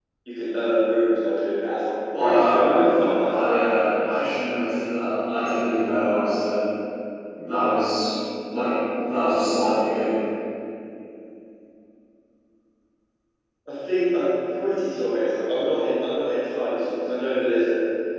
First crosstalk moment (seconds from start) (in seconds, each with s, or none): 2.1 s